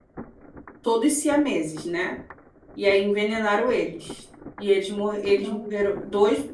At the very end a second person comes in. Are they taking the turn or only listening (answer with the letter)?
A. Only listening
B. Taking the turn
A